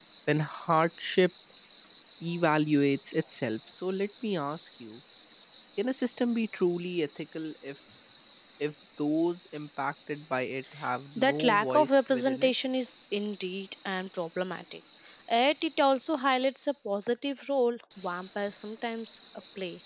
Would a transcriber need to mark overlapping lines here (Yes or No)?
Yes